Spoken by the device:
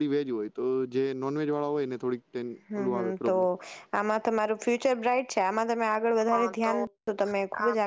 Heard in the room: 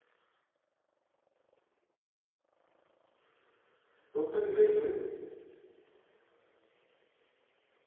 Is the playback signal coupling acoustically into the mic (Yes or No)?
No